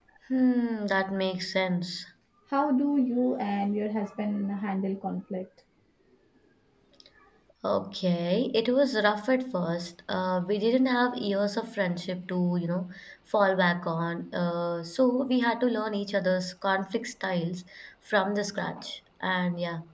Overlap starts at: none

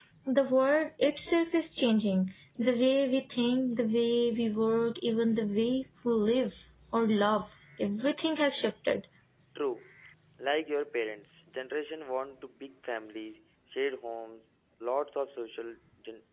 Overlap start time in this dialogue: none

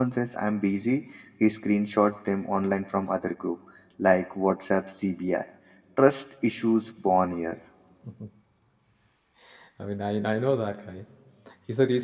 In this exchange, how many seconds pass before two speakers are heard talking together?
none

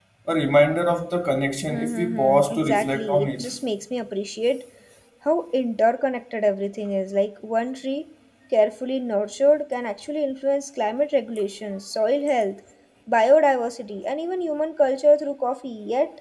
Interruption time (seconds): 1.7 s

